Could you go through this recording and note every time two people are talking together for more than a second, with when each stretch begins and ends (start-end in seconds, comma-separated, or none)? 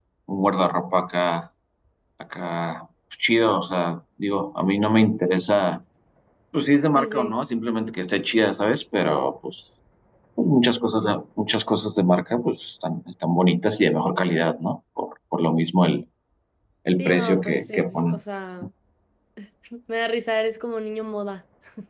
17.0-18.2